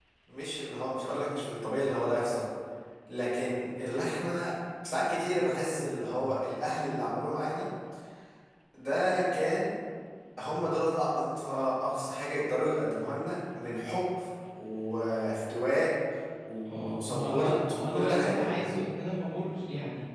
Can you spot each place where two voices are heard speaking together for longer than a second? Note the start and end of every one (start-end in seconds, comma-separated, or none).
16.7-18.5